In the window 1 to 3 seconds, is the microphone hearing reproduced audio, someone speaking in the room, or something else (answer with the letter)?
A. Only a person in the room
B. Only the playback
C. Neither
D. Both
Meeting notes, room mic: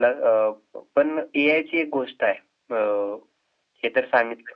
B